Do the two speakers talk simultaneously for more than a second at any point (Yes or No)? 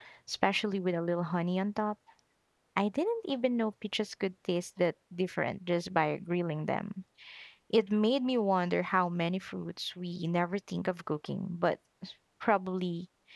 No